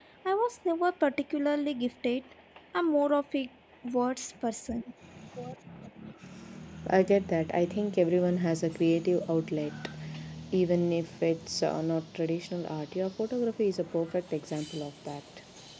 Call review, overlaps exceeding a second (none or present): none